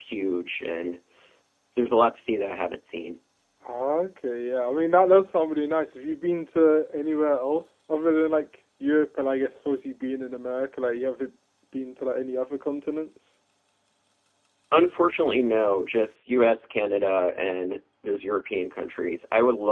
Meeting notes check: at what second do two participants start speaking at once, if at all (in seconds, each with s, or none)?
none